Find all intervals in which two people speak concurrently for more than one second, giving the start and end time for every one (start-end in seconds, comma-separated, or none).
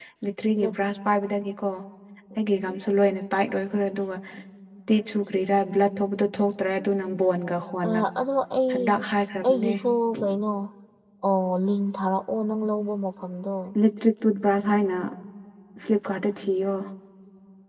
none